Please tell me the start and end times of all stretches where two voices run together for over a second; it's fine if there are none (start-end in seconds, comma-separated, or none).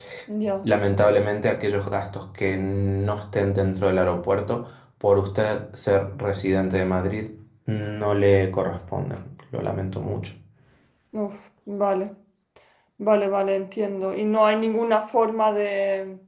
none